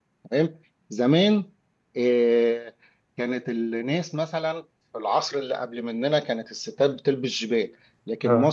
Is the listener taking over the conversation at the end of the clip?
No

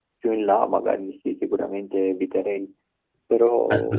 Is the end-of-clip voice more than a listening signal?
Yes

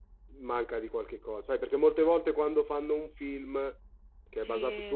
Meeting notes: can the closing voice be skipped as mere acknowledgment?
Yes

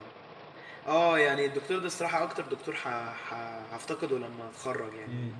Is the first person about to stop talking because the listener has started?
No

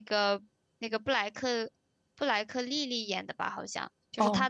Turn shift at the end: No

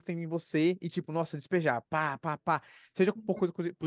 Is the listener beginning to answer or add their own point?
No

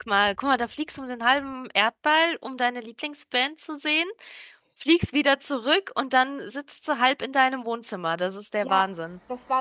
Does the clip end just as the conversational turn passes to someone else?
Yes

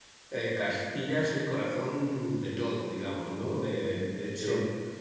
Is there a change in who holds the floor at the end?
Yes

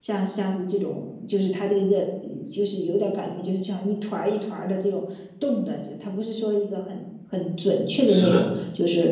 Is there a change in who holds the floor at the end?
No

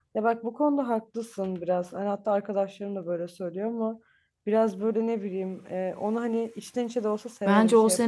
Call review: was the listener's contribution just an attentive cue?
No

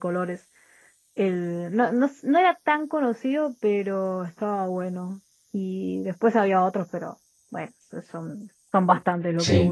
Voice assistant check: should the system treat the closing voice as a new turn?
Yes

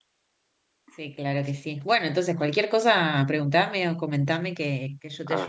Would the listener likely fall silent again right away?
No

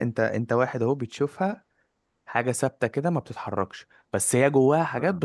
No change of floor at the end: Yes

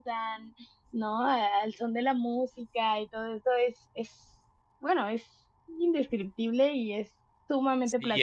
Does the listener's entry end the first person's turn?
Yes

